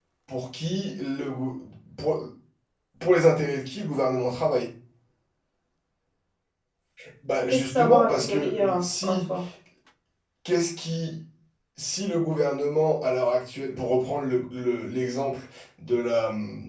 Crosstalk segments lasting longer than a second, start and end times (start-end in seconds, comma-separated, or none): 7.4-9.2